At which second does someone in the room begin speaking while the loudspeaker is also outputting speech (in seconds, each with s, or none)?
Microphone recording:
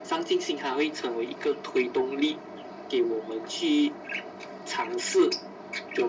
none